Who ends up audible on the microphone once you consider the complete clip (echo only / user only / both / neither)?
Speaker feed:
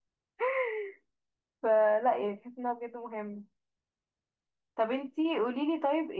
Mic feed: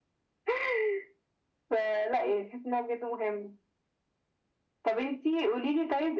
echo only